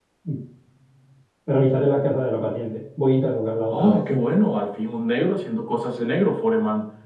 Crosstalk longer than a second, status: none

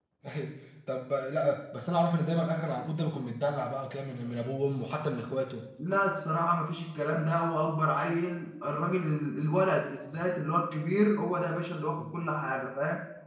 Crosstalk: none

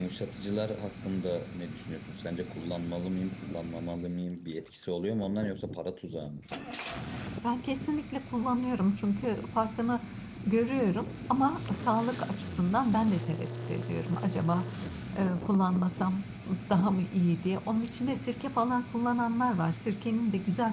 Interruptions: none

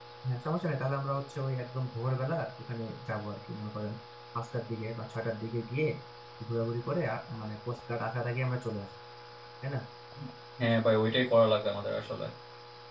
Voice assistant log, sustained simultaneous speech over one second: none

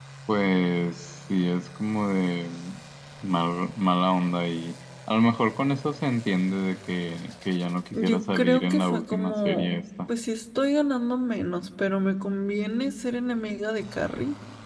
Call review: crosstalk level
present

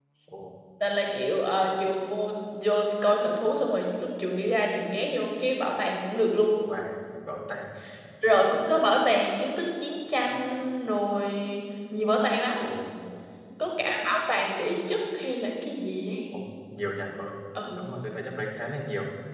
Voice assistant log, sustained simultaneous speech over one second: none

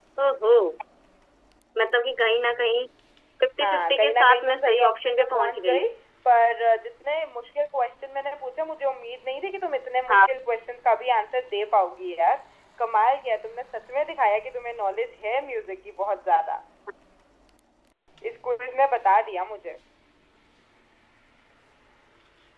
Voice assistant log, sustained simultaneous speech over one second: present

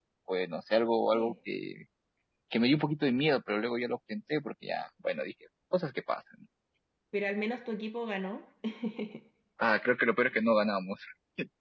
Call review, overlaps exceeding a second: none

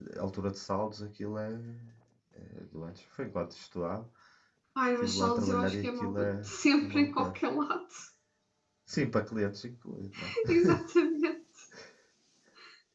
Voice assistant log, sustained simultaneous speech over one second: present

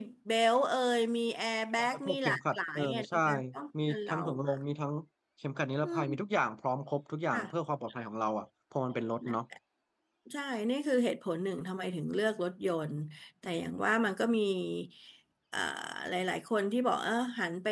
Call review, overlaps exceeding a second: present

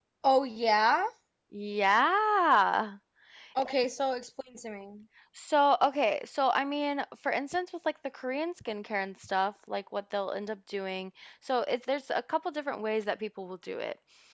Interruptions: none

